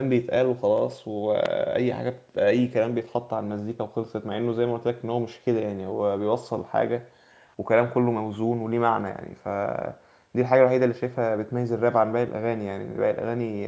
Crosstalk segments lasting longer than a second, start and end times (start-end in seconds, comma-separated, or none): none